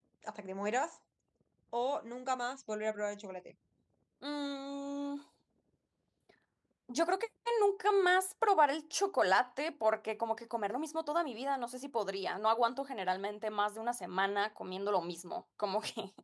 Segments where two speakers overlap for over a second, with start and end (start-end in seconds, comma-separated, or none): none